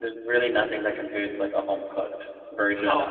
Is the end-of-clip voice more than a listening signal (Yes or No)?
Yes